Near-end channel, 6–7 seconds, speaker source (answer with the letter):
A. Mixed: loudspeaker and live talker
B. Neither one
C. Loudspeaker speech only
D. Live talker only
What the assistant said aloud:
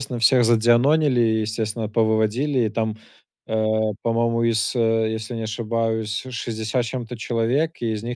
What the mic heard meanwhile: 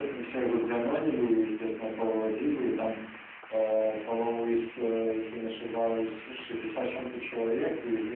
C